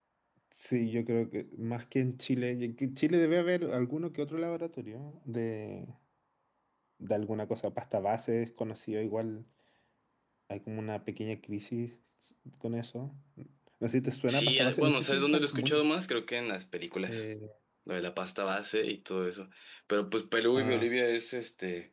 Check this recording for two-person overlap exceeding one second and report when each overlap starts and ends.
14.3-15.9

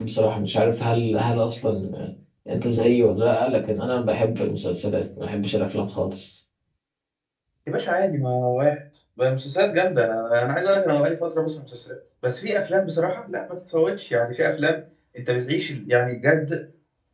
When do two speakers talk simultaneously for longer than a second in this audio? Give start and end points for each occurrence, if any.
none

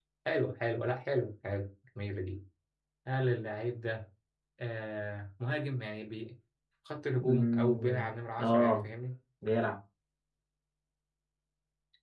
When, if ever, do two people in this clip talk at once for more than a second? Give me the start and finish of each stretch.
7.3-8.8

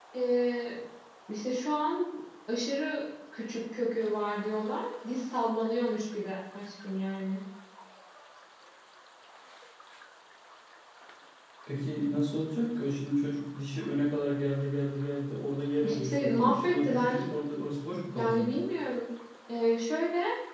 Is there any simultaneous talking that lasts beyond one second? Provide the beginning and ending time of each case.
15.8-17.2

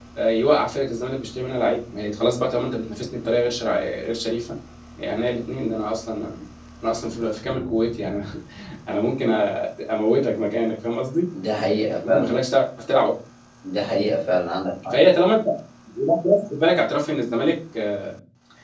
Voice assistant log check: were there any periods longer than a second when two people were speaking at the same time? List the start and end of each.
none

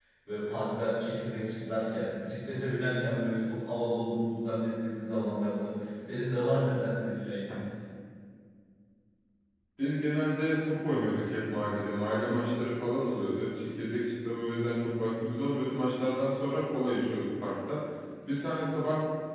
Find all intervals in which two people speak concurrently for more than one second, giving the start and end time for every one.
none

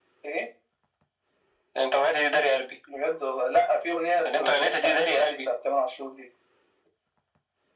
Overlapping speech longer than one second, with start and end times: 4.2-5.5

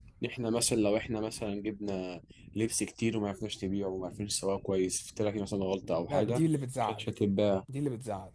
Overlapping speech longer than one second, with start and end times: none

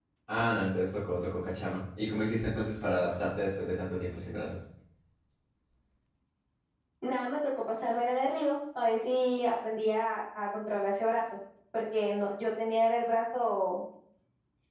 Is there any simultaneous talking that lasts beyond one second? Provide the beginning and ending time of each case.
none

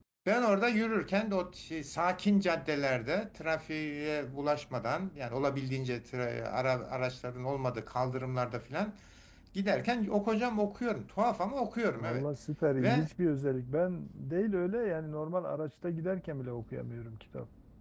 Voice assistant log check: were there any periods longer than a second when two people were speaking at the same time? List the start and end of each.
none

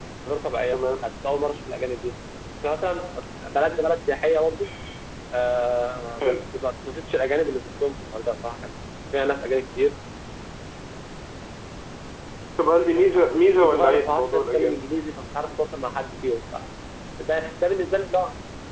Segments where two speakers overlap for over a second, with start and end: 13.2-14.8

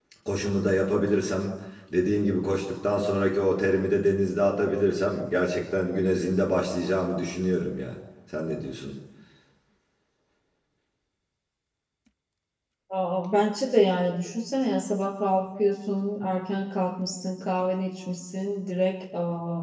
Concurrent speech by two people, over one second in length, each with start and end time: none

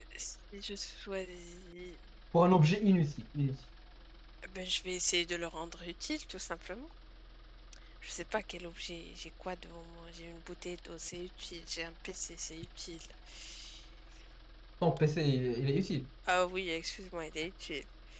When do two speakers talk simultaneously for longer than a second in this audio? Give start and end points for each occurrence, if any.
none

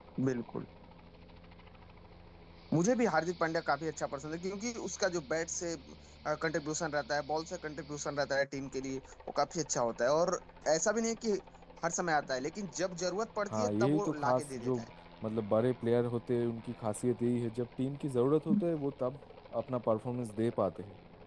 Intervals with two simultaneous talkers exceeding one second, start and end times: 13.5-14.8

